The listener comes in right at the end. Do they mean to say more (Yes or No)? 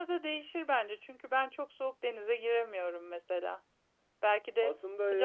No